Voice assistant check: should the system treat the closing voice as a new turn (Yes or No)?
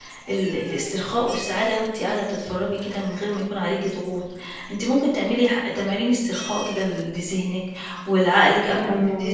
No